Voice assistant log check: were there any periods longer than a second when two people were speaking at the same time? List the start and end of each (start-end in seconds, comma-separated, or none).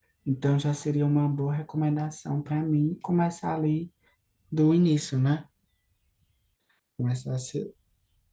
none